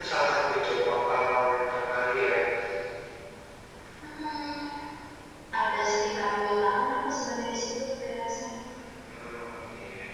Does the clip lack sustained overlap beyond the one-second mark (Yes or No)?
Yes